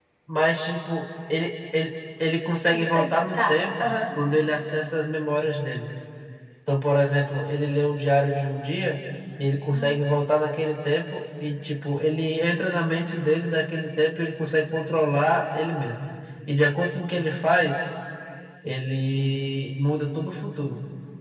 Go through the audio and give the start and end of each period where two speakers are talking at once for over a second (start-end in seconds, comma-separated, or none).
2.6-3.9